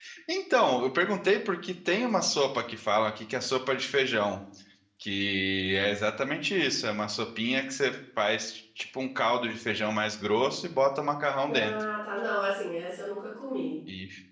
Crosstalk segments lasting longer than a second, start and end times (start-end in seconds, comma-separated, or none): none